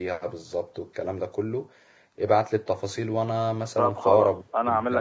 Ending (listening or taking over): taking over